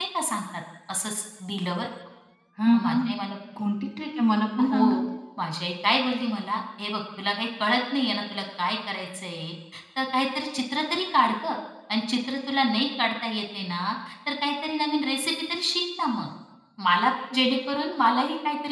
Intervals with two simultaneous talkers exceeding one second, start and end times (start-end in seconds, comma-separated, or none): none